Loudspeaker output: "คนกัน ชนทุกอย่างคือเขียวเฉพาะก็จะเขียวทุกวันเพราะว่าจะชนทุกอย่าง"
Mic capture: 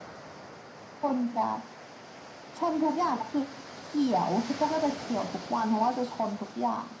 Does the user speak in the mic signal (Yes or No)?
No